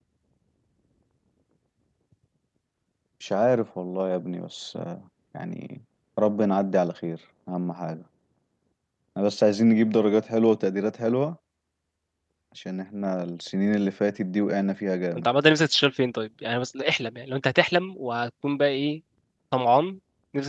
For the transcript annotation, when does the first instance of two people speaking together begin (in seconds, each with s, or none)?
none